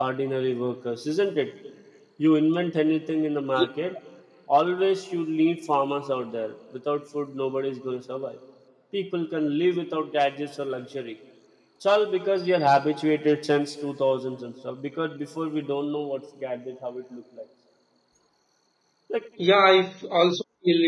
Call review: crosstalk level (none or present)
none